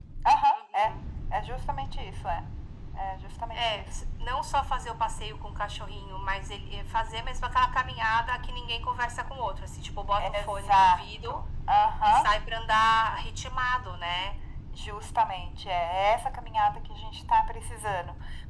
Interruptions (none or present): present